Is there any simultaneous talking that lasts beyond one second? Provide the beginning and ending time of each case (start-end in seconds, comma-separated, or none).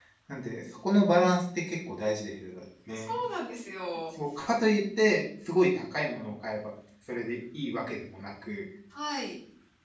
none